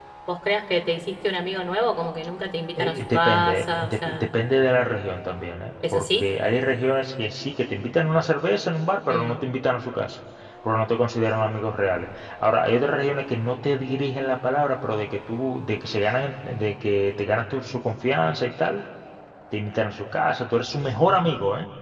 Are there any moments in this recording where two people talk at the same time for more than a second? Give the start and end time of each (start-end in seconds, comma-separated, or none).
2.8-4.3